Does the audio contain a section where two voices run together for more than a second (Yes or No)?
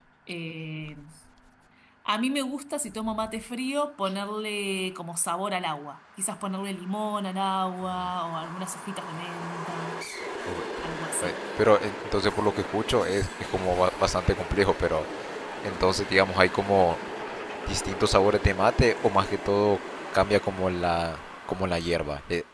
No